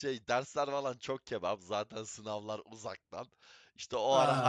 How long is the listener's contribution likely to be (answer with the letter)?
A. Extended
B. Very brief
B